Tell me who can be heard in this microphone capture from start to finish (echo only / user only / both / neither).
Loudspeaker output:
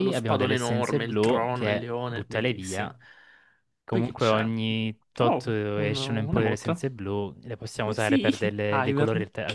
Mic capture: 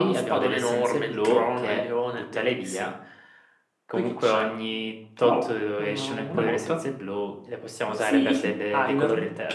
echo only